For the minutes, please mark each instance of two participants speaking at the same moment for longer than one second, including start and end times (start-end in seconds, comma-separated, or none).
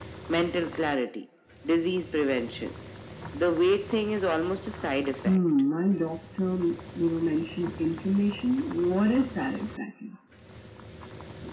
none